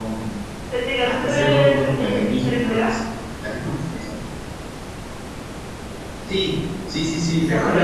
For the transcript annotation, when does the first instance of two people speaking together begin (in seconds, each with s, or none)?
1.0 s